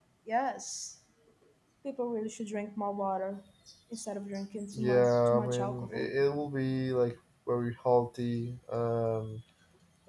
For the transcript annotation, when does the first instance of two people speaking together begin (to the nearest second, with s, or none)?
5 s